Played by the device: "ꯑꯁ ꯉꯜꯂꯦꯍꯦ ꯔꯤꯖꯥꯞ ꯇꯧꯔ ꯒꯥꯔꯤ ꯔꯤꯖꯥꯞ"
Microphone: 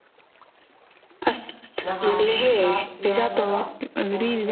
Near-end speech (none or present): present